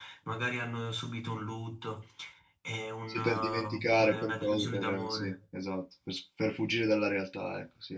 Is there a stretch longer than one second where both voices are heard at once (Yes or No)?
Yes